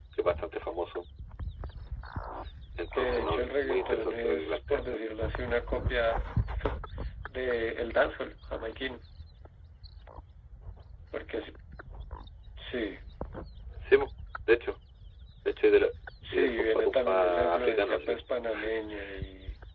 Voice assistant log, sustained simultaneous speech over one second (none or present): present